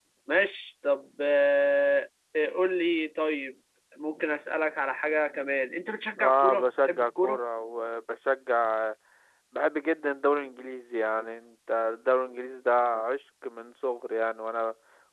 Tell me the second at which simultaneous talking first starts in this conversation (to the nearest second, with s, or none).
6 s